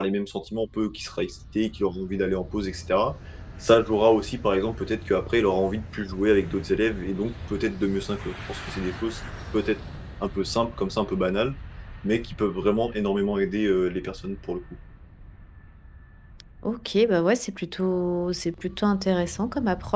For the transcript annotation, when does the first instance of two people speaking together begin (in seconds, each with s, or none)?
none